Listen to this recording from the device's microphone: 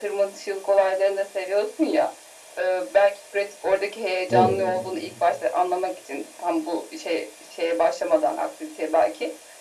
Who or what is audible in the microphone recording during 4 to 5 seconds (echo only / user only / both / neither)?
both